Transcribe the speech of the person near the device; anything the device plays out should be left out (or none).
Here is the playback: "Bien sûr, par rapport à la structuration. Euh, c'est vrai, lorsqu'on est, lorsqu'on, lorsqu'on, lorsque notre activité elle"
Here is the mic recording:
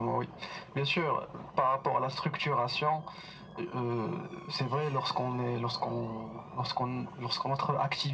none